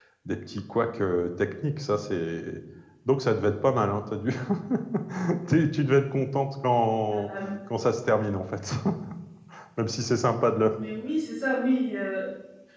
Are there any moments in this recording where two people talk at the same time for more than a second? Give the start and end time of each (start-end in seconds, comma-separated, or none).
none